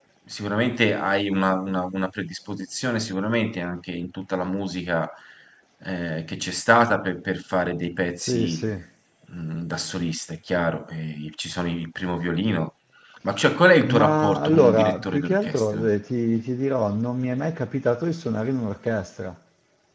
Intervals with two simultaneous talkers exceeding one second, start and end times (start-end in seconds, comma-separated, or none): 13.8-15.9